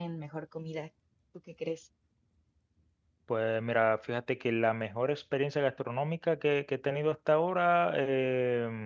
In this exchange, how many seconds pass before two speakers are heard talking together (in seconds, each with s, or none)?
none